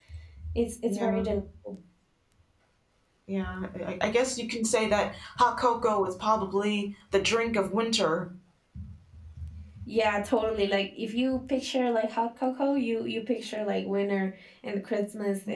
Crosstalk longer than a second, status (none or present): none